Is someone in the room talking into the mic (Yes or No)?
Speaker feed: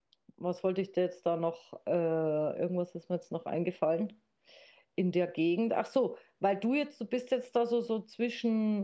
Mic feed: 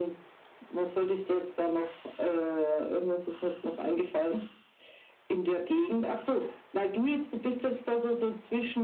No